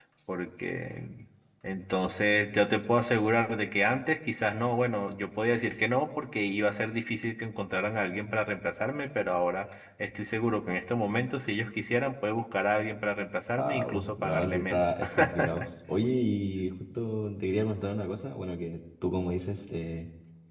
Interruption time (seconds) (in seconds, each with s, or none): 13.6 s